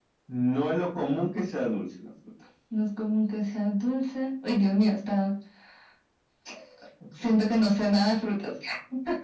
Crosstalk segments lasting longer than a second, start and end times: none

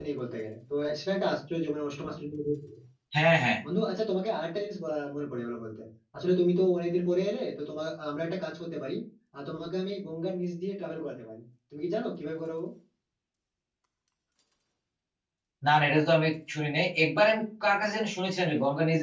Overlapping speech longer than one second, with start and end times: none

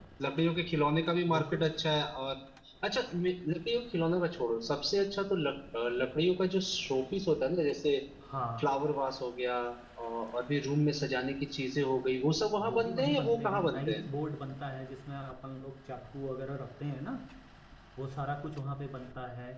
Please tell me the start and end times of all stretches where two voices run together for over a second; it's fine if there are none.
12.6-14.0

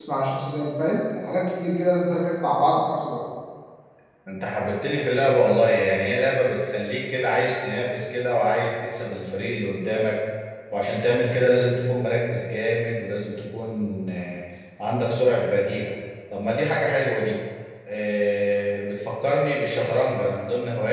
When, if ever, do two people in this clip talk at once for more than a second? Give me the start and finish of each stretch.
none

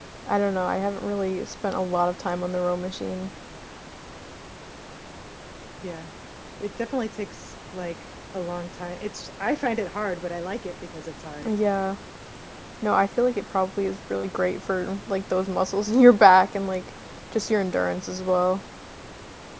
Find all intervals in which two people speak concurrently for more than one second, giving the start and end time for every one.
none

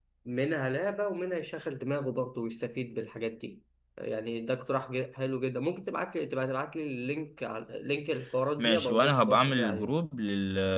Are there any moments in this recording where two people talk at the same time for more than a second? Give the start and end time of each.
8.6-9.9

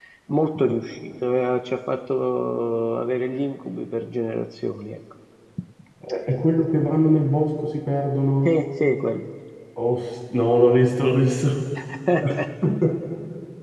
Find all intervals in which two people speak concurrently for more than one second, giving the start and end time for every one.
none

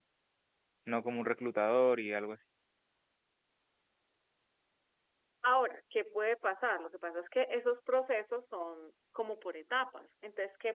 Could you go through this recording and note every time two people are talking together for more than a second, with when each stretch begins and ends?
none

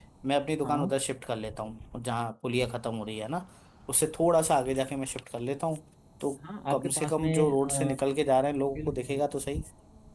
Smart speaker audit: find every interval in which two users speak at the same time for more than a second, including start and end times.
6.7-8.0

